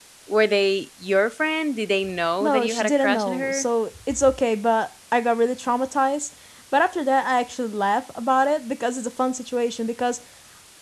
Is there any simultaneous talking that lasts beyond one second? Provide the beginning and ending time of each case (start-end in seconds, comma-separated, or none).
2.4-3.6